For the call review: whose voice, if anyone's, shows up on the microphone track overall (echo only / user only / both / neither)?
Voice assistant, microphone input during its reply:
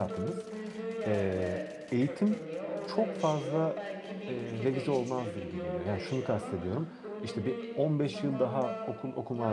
both